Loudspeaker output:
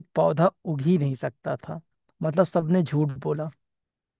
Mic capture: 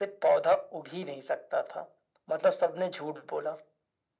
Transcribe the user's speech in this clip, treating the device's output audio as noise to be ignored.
none

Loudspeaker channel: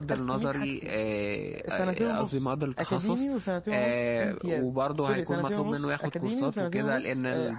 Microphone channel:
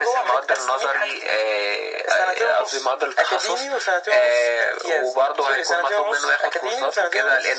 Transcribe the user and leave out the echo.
none

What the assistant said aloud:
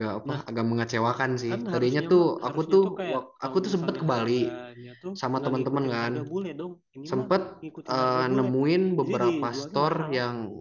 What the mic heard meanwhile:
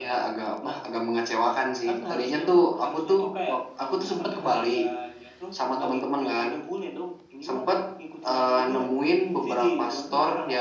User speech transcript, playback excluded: none

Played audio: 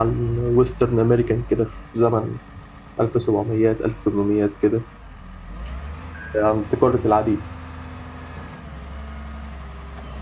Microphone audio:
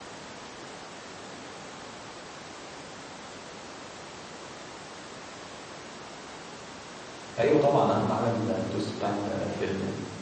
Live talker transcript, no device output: ايوه طبعا اهم حاجة التويست بتاع ال- الفيلم يعني

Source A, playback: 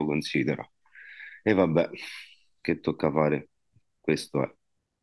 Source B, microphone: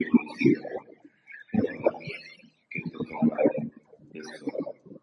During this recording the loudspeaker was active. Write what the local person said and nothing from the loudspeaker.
none

